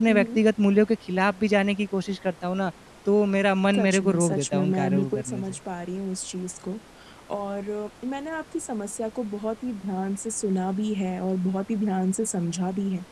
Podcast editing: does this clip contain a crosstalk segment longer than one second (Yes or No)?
Yes